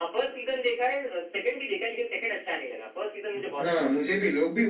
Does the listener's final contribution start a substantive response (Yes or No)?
Yes